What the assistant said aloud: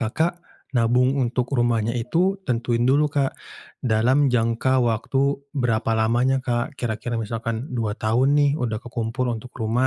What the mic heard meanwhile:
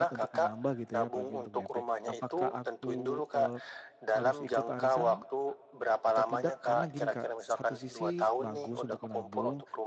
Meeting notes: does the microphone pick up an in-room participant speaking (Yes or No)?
Yes